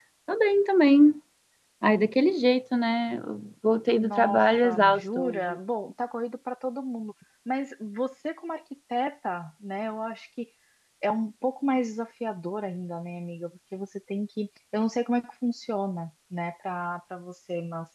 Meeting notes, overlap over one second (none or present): present